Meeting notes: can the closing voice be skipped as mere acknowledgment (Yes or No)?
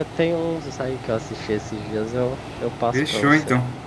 No